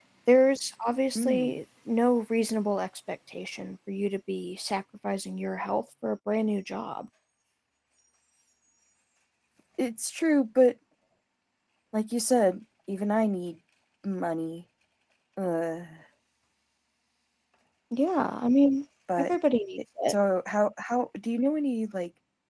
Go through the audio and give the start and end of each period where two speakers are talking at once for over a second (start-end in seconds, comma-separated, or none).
none